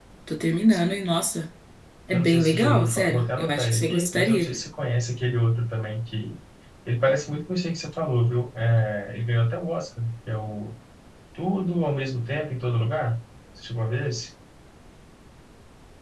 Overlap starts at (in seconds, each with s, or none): 2.1 s